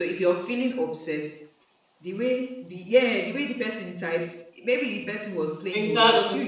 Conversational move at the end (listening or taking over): listening